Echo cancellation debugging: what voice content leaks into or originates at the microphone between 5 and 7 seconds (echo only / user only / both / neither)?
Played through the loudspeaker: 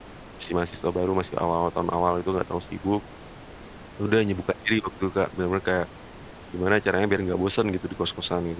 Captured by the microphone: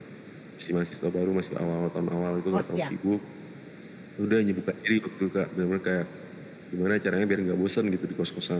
echo only